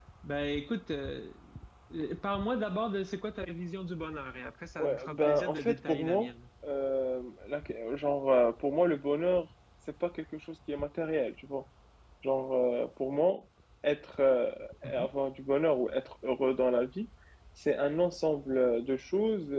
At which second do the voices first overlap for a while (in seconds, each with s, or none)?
4.8 s